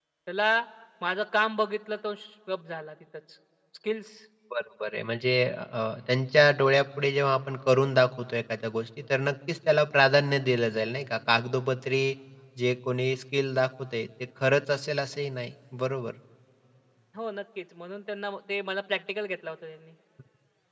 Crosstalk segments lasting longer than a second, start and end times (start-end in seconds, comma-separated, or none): none